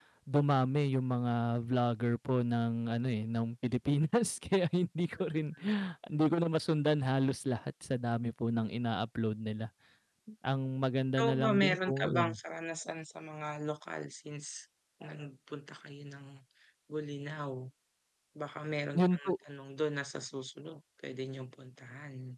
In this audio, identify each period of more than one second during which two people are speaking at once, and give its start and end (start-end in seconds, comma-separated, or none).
11.1-12.4